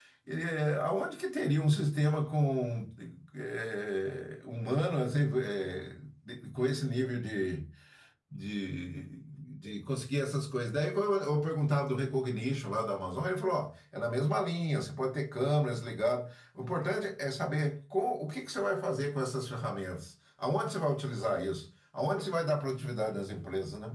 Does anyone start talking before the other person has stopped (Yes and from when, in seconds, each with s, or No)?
No